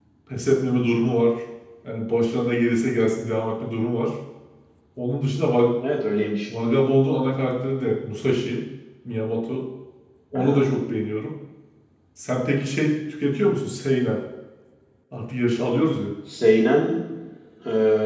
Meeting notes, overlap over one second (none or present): none